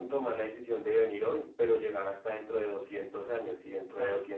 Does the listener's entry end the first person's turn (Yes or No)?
No